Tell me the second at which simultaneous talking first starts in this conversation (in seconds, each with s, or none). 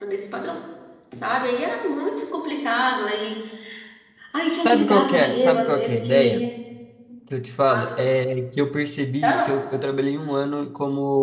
4.7 s